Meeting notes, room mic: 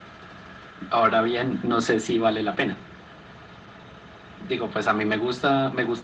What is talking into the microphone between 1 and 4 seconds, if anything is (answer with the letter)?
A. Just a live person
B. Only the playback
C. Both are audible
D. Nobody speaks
B